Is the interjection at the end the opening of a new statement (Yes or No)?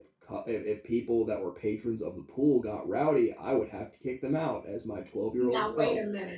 Yes